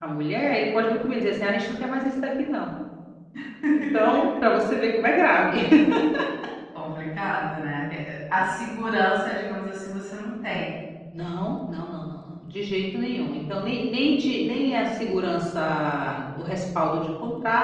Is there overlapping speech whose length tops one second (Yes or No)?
No